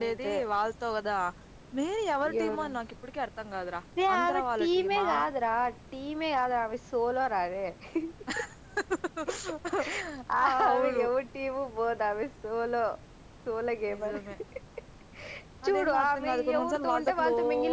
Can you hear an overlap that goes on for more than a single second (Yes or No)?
Yes